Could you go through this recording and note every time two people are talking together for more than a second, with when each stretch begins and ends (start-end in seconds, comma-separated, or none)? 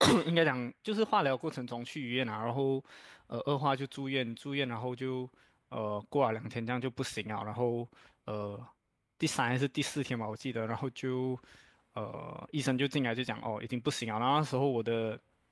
none